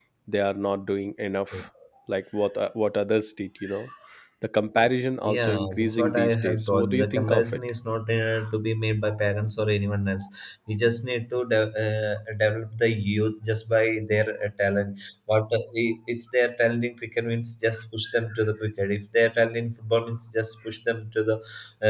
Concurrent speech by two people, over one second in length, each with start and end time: 5.2-7.6

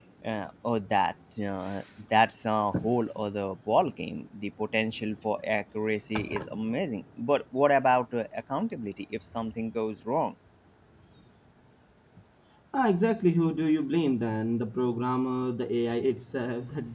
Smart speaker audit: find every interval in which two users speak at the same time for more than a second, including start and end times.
none

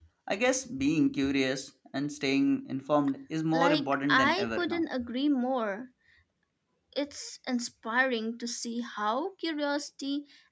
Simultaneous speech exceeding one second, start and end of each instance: 3.5-4.8

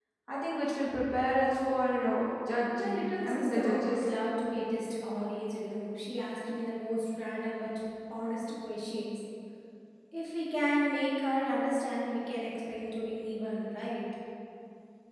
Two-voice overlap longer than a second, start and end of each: 2.8-4.1

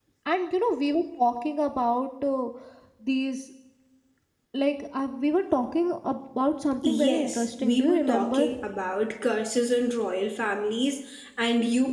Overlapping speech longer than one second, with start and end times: 6.8-8.5

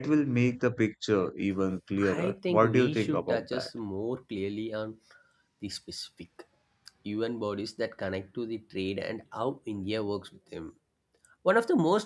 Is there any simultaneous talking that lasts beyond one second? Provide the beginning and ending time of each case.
2.1-3.7

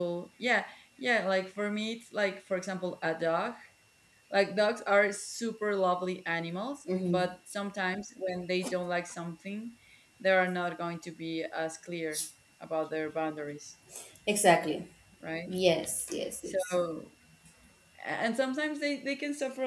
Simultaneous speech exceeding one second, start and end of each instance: none

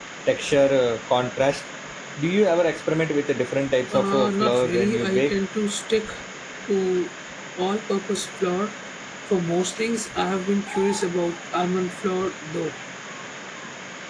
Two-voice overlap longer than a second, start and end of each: 3.9-5.3

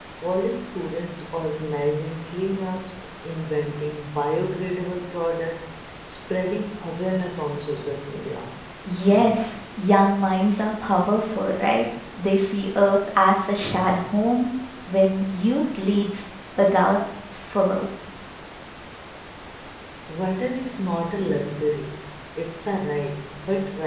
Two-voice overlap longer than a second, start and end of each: none

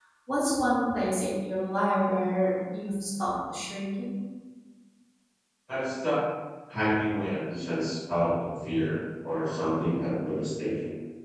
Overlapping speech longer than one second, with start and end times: none

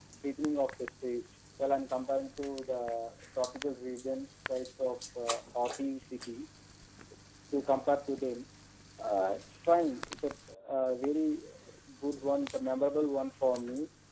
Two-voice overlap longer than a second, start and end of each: none

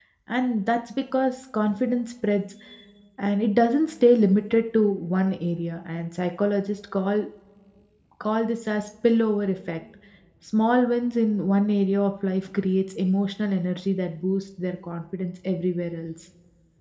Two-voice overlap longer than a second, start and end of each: none

